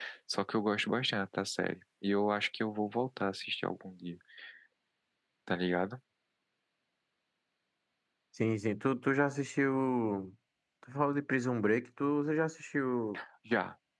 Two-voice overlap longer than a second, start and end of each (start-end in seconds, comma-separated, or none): none